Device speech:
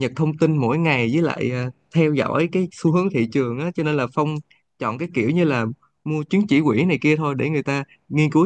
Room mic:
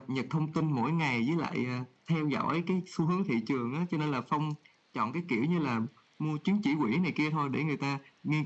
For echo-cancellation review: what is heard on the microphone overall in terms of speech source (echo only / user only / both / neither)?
echo only